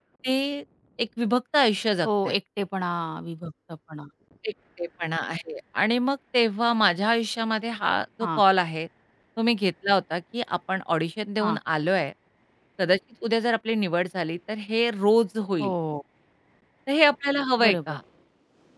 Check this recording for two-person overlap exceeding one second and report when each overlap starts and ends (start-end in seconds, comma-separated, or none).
none